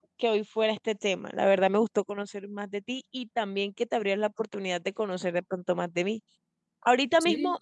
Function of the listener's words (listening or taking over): listening